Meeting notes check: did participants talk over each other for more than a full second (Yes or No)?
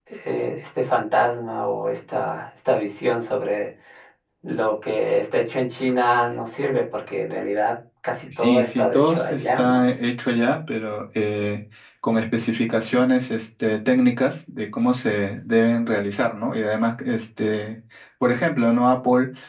Yes